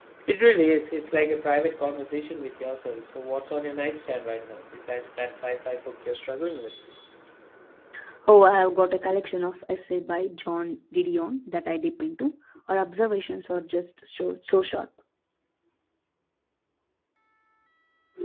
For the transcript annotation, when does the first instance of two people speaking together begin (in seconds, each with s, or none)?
none